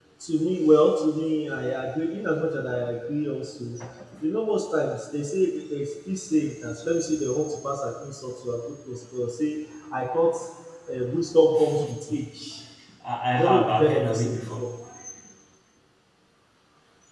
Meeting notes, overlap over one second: present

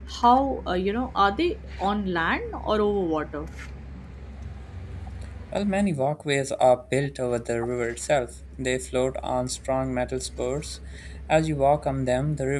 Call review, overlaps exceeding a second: none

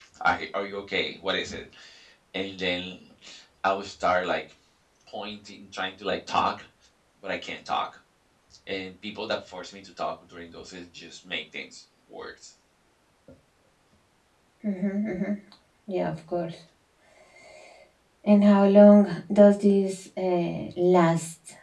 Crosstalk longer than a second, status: none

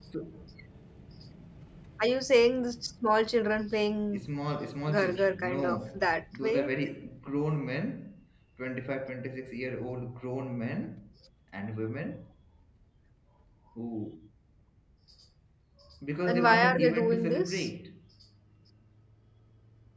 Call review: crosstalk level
present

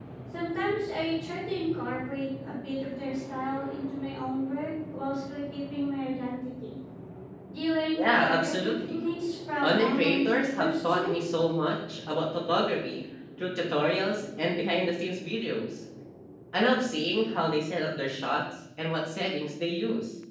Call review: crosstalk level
present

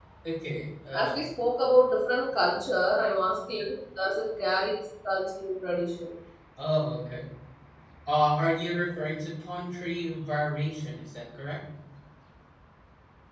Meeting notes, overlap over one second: none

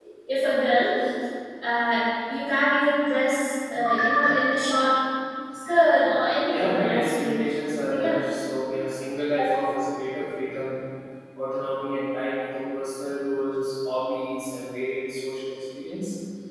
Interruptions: present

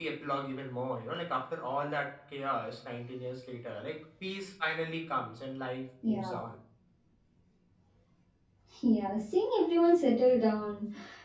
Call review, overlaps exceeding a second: none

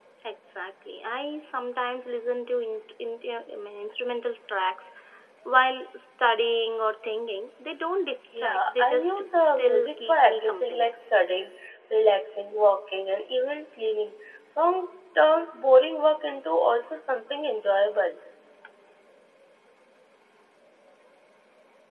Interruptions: present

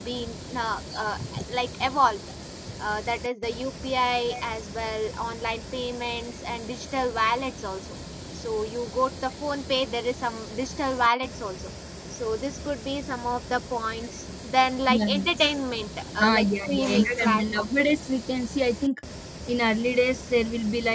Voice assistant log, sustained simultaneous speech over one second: present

